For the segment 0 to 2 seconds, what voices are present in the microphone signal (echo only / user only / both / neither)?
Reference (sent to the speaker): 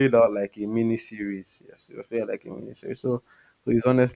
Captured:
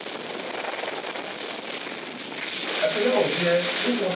neither